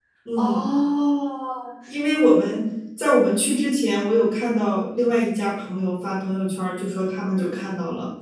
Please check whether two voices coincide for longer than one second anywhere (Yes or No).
No